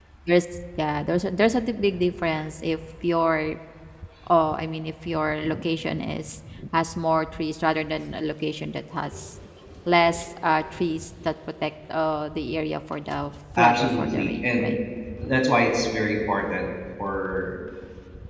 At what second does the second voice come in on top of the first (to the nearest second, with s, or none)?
14 s